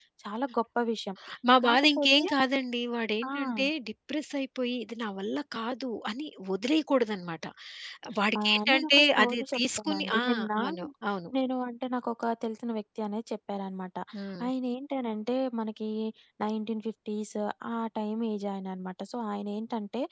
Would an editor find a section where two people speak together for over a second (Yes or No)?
Yes